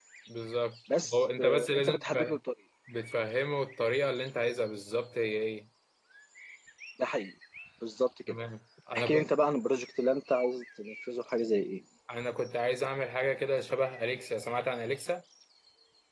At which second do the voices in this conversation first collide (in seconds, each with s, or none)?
1.0 s